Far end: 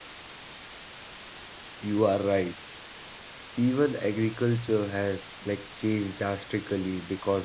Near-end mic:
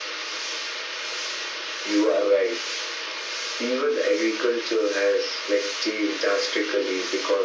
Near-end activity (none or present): none